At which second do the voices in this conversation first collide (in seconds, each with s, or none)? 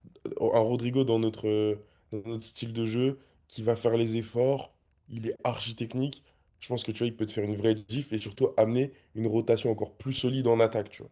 none